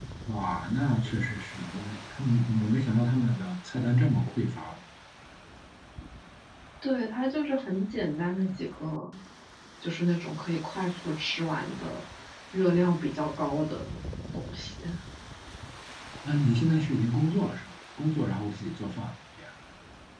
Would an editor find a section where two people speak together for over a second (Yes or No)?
No